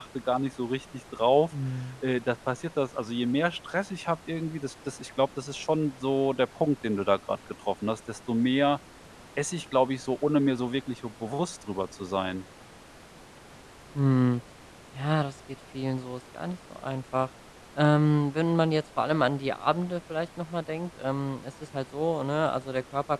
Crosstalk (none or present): none